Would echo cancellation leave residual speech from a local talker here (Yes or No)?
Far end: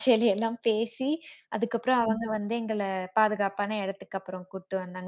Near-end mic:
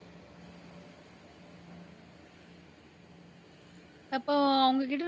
Yes